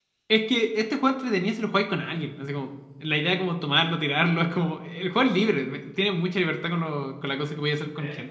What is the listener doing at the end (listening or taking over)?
taking over